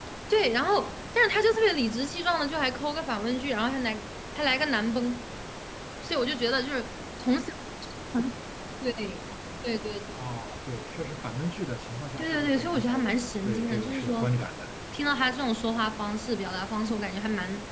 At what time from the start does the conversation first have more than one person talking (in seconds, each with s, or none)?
12.2 s